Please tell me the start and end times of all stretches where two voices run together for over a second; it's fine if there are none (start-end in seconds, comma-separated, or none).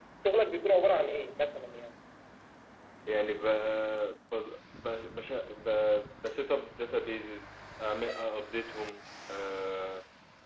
none